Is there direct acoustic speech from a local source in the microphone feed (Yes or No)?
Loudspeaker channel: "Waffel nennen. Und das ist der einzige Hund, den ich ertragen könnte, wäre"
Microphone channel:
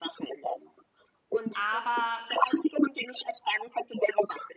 Yes